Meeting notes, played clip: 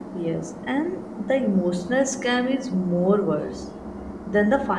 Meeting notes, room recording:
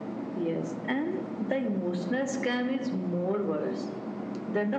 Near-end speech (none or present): none